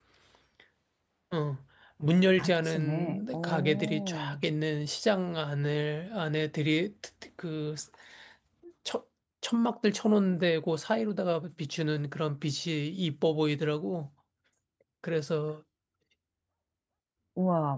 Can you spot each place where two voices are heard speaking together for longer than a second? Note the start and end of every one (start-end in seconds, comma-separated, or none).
2.4-4.4